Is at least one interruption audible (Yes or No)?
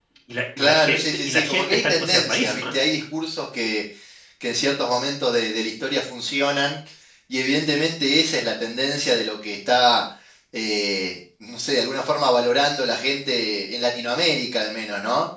Yes